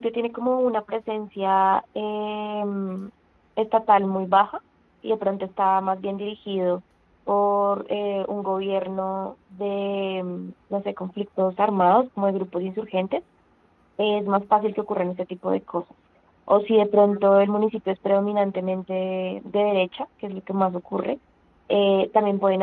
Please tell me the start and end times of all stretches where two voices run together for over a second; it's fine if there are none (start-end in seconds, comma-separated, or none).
none